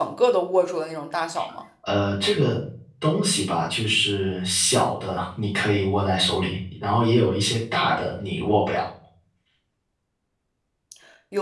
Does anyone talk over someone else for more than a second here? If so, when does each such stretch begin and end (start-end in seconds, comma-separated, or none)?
none